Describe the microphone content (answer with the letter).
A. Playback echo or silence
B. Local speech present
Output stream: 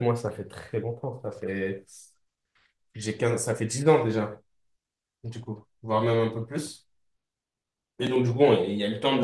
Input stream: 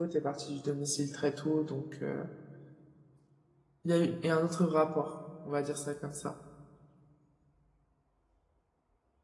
B